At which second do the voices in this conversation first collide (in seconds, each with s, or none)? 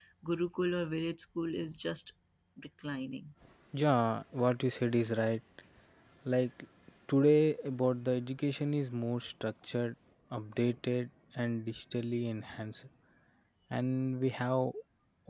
none